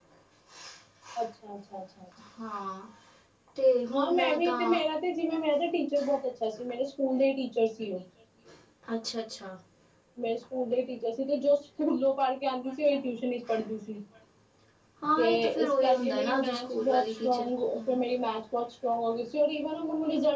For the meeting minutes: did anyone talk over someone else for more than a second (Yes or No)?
Yes